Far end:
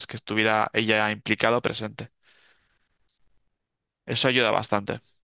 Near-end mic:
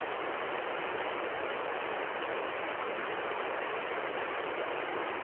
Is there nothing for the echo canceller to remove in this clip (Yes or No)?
Yes